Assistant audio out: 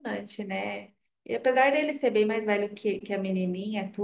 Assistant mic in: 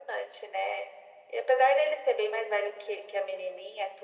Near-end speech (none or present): none